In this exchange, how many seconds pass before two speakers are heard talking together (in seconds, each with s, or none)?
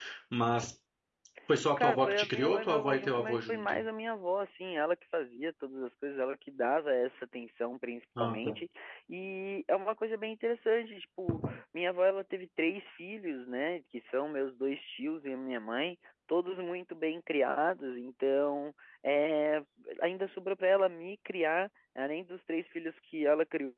1.8 s